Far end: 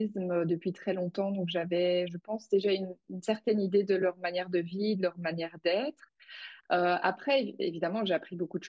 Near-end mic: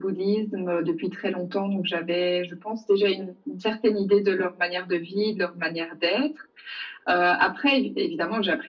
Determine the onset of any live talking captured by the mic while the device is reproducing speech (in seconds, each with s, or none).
none